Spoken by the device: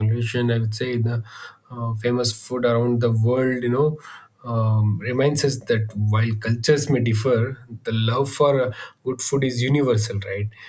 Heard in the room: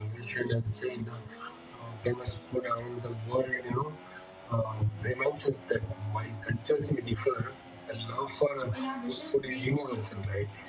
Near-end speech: present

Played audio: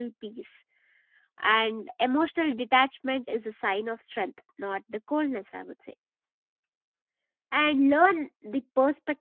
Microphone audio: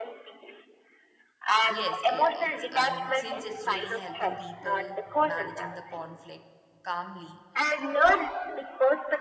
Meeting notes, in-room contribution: present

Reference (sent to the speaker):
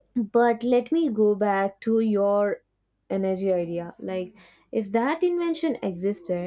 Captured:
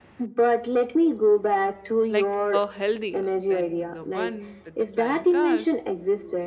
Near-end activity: present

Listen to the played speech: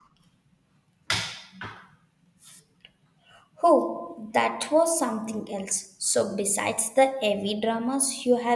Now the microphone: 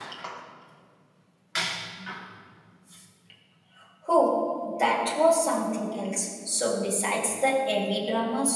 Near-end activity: none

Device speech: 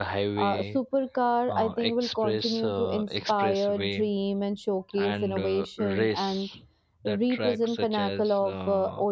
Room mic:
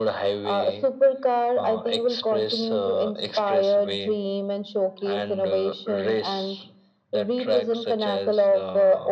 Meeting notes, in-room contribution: none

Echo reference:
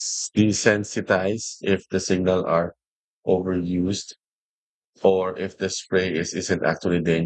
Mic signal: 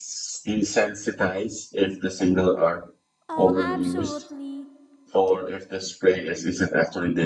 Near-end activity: present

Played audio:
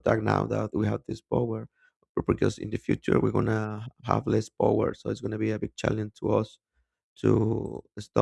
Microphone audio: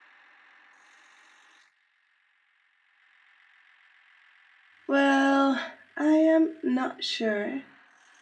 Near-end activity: present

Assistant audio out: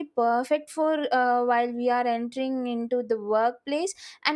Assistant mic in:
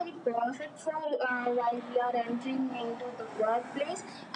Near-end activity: none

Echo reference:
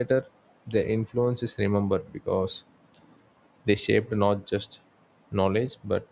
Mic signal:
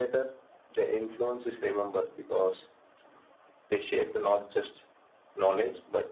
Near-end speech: none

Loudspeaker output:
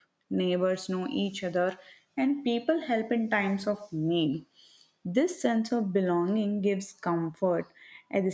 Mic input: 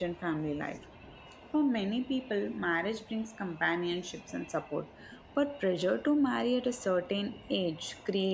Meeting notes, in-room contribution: present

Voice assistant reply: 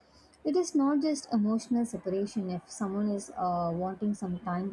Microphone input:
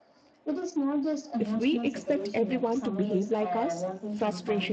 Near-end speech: present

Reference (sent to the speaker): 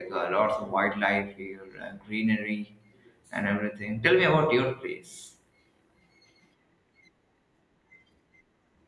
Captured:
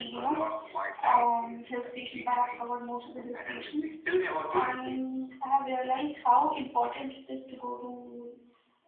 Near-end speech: present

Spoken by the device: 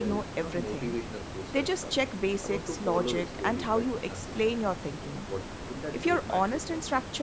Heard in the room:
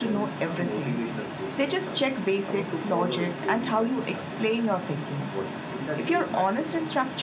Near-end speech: none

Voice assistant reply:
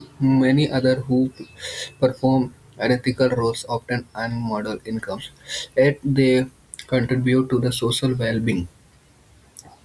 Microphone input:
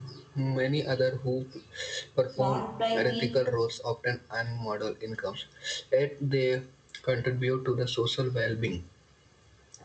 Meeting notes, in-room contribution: present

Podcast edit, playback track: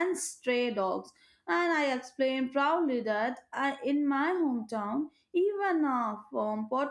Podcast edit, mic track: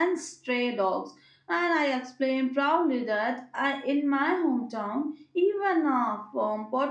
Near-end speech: none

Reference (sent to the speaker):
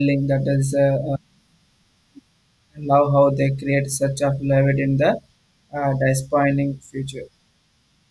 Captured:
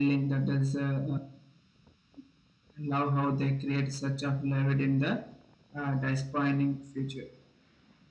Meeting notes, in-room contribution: none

